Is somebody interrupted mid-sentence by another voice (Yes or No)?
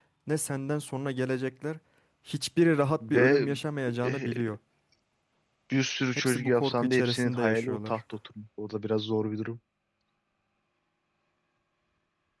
Yes